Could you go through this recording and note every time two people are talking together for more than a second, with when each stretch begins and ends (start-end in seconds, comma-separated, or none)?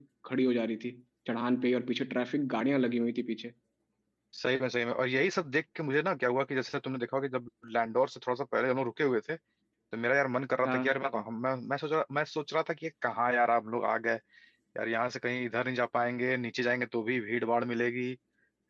none